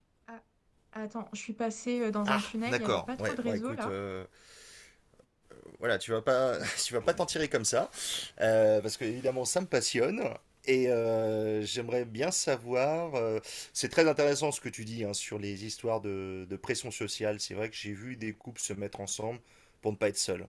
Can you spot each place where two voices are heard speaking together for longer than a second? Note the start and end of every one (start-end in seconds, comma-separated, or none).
2.2-3.9